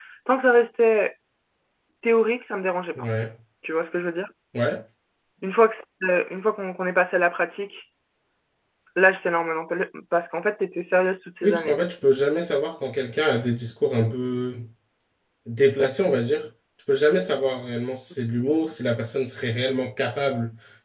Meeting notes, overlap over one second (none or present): none